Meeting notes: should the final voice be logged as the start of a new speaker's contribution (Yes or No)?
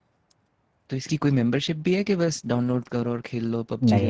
Yes